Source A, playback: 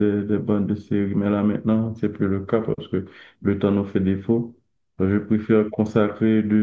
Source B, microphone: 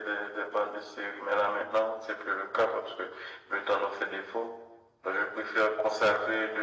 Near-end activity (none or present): none